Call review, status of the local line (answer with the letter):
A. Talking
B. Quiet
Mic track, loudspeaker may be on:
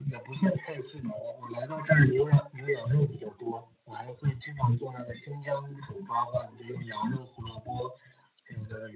B